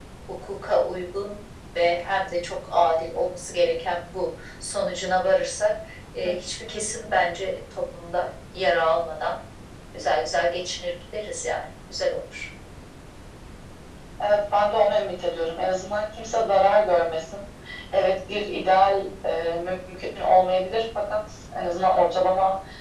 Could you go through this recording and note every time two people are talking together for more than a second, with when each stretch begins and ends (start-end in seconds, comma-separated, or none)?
none